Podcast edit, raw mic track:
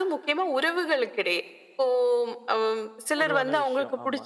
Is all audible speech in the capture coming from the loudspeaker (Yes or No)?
No